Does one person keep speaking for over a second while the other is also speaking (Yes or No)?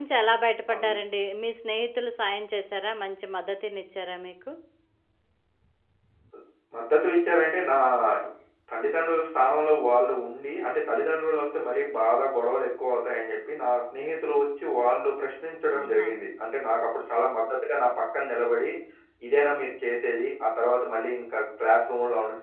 No